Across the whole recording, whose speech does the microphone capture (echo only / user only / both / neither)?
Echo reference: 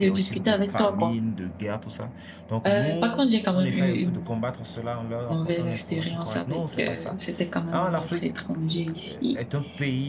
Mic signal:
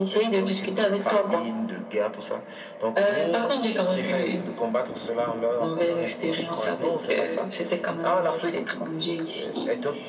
echo only